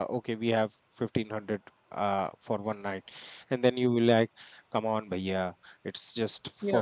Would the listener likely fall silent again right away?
Yes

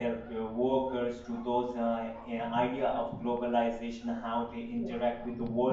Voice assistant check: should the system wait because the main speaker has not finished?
Yes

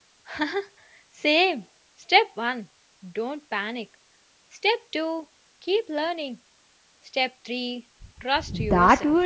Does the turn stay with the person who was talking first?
No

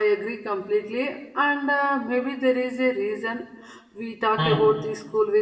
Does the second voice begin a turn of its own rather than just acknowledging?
No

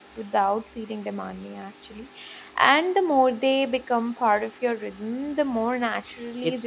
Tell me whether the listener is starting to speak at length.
Yes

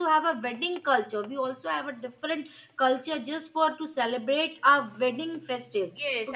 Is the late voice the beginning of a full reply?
Yes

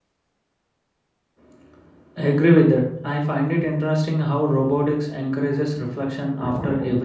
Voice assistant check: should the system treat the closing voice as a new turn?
No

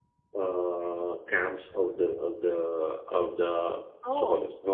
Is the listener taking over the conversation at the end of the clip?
No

